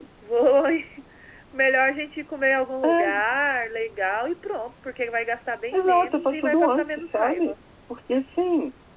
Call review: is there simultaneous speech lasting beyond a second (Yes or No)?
Yes